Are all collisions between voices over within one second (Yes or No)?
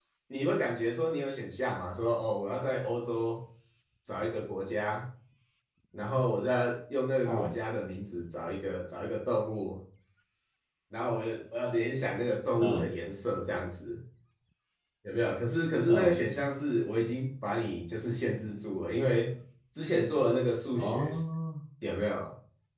Yes